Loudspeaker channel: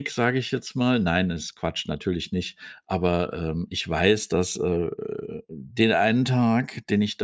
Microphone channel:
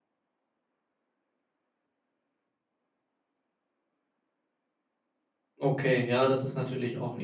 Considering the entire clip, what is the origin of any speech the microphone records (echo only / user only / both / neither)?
user only